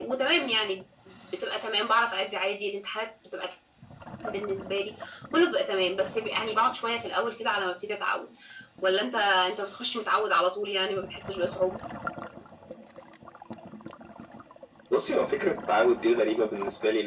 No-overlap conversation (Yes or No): Yes